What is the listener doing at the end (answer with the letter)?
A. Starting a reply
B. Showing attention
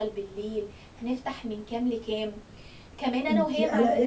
B